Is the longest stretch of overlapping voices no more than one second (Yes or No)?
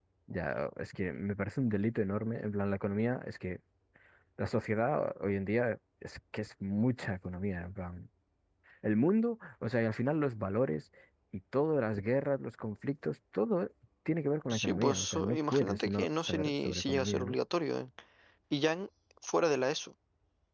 No